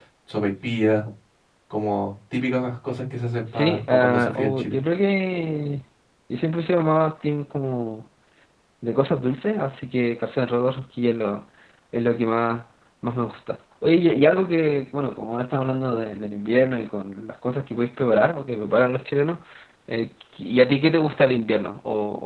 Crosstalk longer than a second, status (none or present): present